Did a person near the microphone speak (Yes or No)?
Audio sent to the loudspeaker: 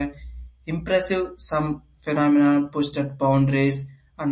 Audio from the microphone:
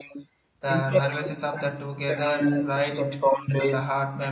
Yes